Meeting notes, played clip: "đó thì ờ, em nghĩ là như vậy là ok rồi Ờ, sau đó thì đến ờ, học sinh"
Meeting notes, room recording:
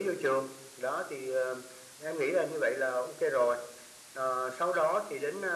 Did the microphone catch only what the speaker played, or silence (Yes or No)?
Yes